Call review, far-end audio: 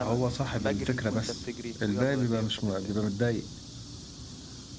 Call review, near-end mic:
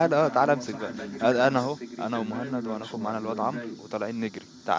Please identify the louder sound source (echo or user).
user